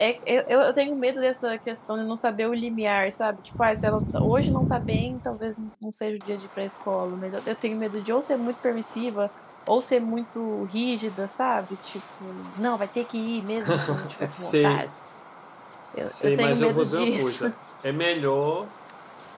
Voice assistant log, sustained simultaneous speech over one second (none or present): present